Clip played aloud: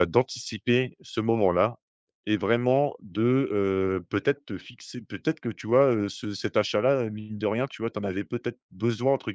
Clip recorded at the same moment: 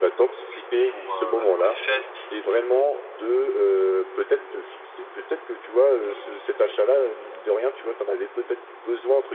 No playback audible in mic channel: No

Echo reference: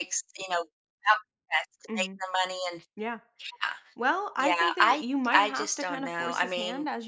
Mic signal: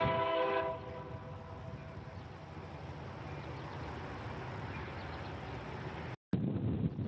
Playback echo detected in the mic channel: No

